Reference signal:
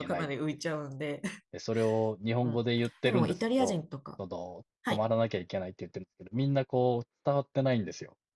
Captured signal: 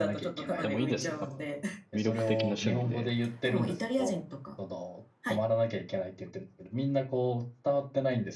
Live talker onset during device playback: 1 s

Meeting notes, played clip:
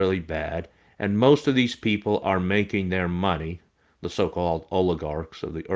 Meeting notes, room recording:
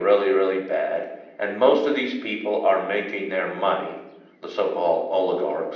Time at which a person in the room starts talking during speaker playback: none

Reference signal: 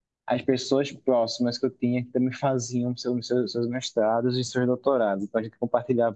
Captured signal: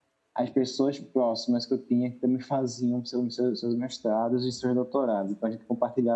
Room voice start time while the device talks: none

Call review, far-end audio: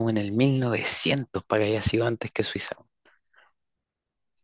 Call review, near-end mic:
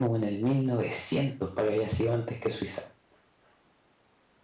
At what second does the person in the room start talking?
none

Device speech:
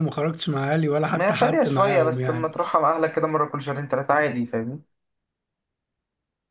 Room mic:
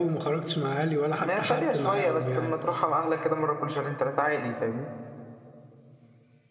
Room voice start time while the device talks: none

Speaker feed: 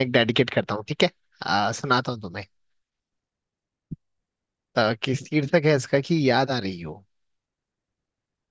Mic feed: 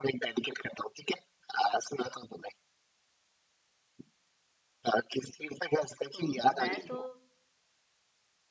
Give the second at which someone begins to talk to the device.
6 s

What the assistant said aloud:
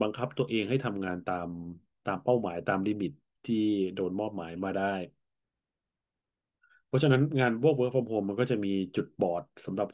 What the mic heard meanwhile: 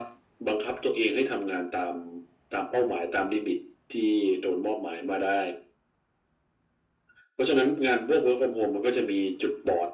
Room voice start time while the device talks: none

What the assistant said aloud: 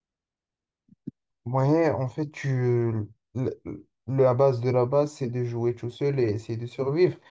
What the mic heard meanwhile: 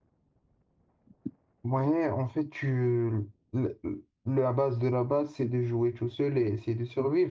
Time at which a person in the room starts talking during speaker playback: none

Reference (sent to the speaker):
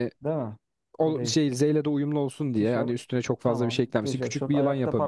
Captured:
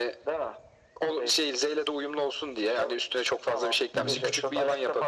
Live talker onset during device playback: 4 s

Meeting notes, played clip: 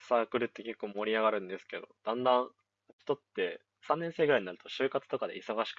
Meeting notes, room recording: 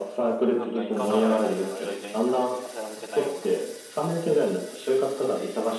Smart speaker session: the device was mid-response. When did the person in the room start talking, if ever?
1 s

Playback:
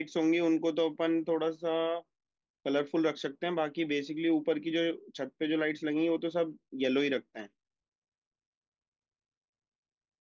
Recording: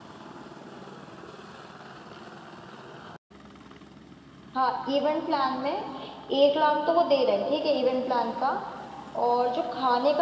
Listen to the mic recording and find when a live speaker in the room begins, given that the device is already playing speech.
5 s

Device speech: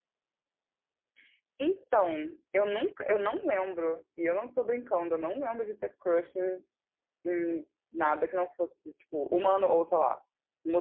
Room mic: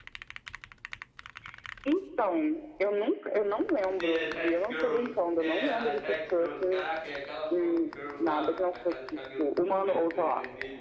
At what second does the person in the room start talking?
4 s

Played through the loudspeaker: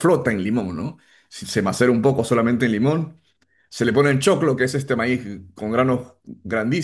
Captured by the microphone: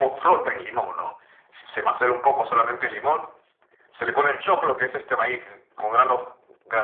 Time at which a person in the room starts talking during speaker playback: none

